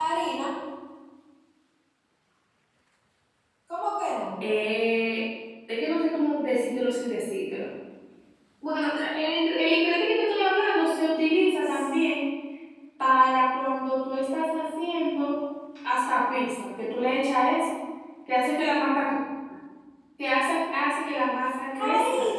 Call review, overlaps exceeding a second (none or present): none